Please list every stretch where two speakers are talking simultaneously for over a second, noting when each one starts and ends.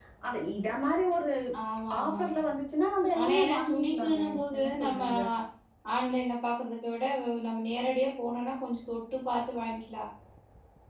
3.2-5.0

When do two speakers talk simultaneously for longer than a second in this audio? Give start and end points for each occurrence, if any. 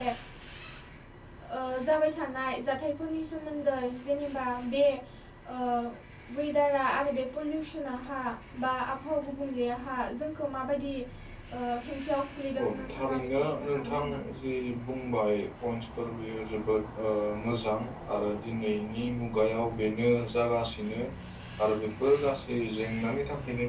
12.6-14.0

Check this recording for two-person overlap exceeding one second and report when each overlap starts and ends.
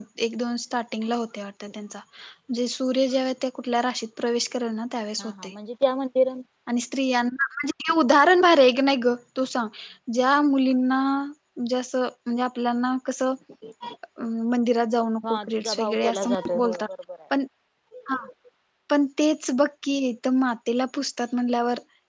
15.3-16.8

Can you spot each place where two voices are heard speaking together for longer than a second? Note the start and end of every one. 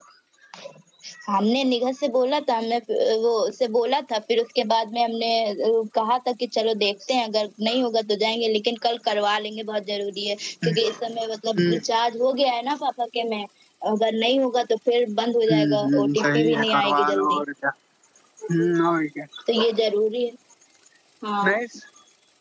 15.5-17.4

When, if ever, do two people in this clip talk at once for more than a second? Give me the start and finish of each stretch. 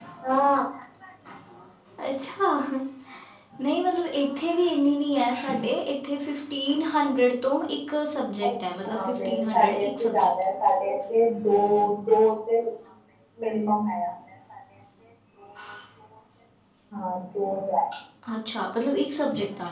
8.5-10.3

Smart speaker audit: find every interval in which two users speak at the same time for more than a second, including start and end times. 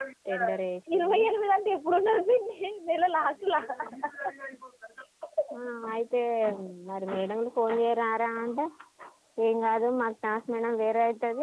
none

